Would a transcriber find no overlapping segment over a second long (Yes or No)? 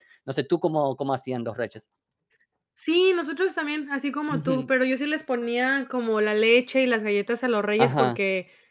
Yes